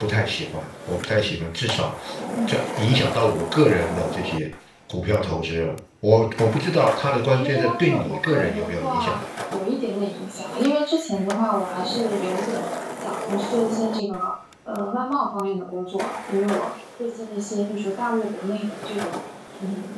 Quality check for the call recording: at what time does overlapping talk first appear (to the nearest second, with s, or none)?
7 s